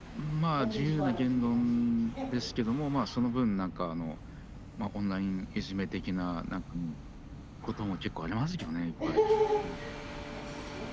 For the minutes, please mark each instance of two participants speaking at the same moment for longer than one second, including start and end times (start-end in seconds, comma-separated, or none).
0.6-2.5